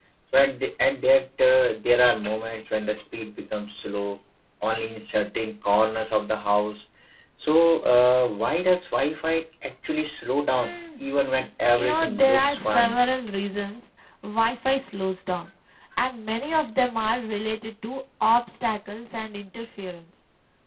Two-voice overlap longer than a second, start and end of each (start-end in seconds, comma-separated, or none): 11.8-13.0